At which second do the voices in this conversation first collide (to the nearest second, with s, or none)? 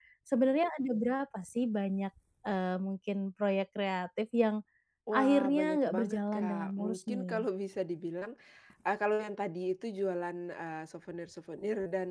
5 s